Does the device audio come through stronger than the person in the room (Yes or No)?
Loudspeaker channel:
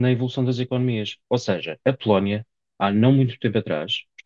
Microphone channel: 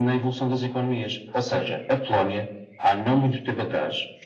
Yes